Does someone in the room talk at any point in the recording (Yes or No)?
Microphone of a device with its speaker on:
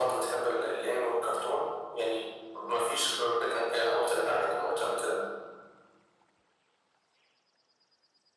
No